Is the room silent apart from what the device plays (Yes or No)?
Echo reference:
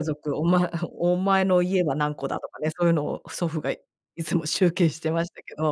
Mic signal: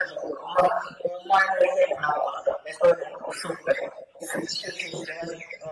Yes